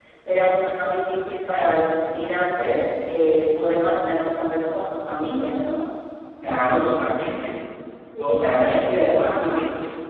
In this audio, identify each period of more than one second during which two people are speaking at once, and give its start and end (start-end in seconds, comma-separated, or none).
8.2-9.6